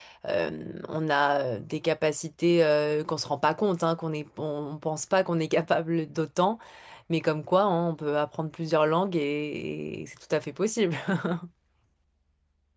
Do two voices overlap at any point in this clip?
No

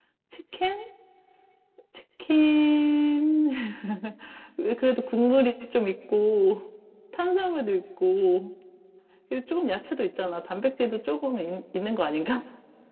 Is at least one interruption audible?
No

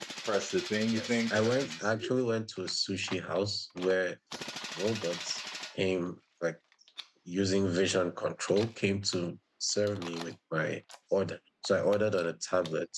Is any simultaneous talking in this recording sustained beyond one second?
Yes, from 0.9 s

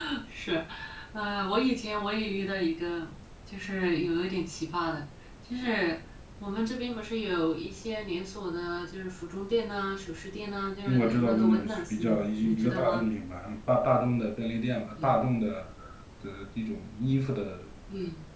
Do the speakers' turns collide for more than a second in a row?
Yes, from 10.9 s

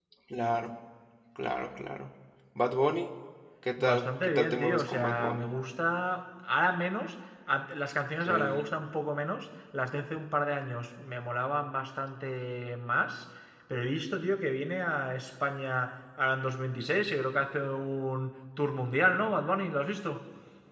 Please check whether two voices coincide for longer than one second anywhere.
Yes, from 3.8 s

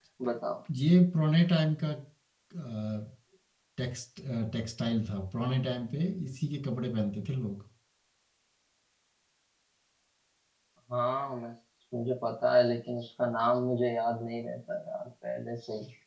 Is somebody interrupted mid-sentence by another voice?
No

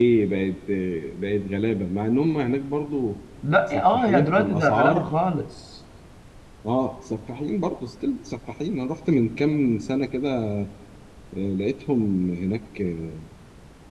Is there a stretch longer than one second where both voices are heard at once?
Yes, from 3.7 s

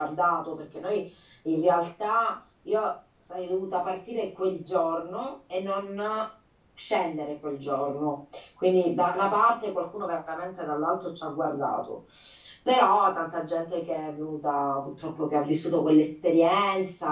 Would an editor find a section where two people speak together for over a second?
No

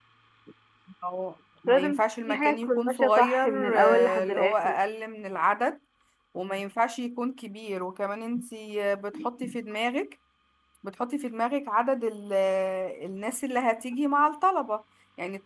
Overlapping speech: Yes, from 1.7 s

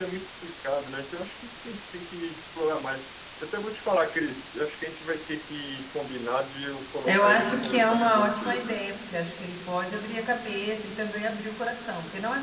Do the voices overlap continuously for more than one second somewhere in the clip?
Yes, from 7.1 s

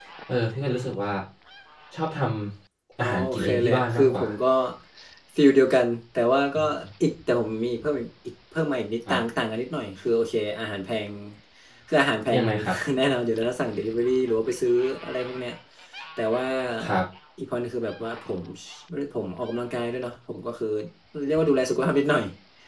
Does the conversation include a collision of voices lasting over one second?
Yes, from 3.0 s

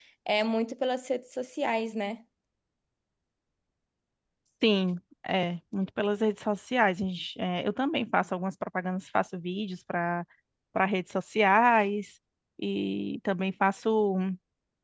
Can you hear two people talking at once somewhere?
No

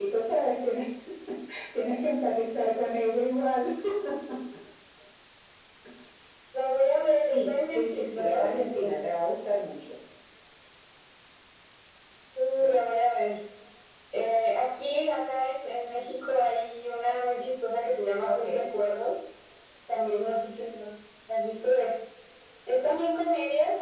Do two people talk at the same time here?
Yes, from 7.3 s

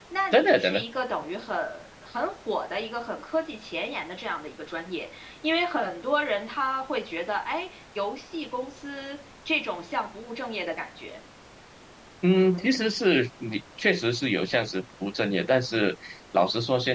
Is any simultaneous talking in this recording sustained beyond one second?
No

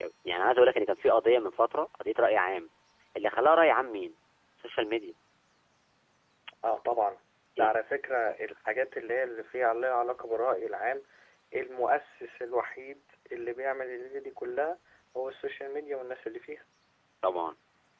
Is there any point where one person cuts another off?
No

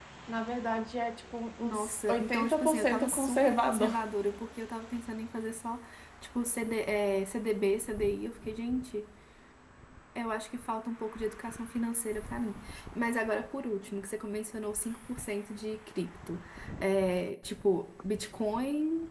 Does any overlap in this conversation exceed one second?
Yes, from 1.6 s

